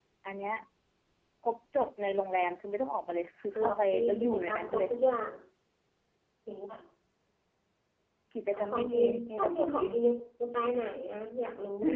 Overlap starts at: 4 s

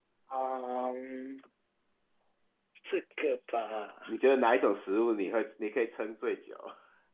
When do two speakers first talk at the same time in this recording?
none

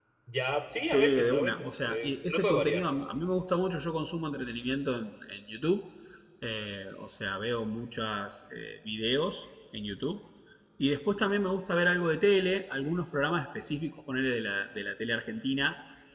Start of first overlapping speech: 1 s

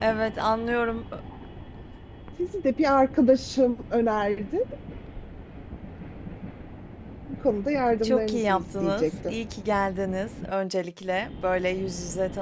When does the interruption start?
8 s

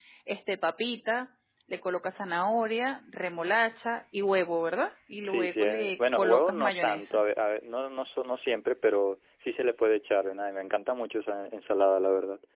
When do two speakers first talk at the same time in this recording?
5 s

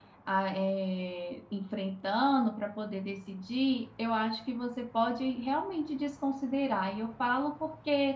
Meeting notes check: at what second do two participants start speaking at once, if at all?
none

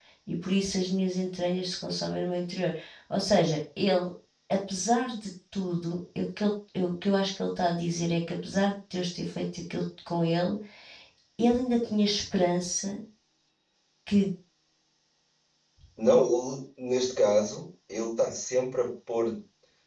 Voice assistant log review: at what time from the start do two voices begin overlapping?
none

